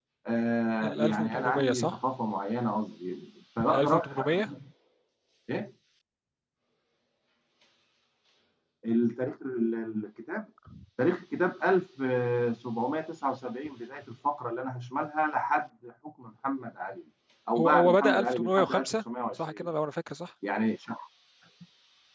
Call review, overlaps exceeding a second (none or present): present